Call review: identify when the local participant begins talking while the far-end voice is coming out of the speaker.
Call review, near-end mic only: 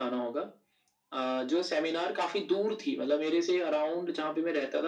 none

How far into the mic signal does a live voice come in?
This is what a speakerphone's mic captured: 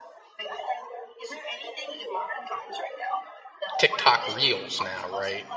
4 s

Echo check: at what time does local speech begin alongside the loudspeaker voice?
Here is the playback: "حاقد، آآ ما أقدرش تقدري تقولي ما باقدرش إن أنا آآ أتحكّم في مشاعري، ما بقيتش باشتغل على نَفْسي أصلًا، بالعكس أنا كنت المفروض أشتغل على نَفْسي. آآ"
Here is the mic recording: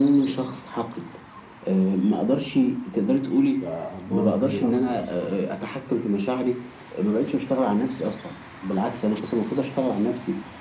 4 s

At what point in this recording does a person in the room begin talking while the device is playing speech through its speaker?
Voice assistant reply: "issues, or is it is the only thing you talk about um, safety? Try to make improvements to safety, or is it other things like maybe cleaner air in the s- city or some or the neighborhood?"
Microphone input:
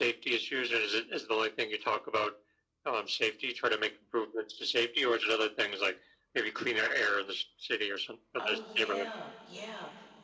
8 s

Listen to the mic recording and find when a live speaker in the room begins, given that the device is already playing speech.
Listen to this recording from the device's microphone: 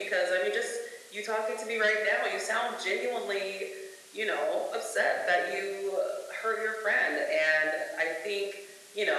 none

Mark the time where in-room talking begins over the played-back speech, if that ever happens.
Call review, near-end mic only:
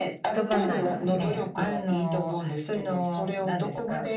0 s

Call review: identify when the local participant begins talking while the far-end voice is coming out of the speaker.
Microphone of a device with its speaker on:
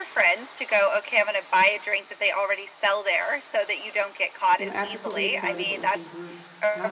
5 s

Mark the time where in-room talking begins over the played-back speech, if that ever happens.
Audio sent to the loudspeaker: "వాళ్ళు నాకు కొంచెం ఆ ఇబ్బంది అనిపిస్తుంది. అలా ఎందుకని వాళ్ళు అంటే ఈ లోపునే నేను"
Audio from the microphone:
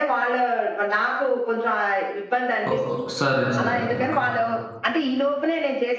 3 s

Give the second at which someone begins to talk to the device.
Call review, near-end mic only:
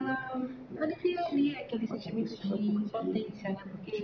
none

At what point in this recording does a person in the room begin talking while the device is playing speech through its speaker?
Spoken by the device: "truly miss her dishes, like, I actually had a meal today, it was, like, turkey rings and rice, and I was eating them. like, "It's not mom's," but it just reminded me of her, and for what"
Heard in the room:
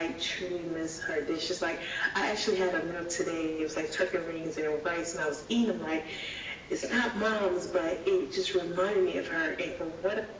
none

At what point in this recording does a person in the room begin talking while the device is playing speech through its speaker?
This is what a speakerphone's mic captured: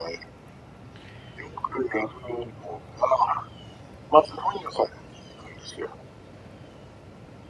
none

